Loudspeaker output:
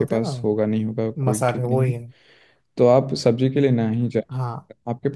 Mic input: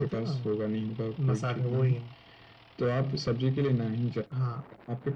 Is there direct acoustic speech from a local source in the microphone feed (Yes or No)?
No